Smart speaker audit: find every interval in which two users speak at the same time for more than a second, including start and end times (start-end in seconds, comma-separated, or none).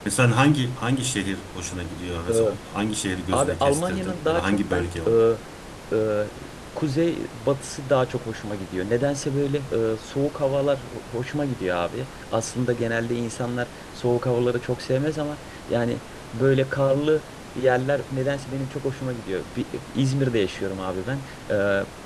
3.3-4.9